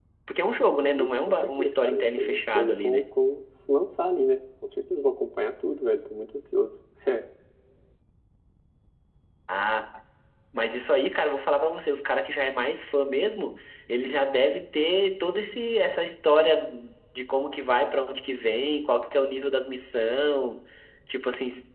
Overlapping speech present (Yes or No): Yes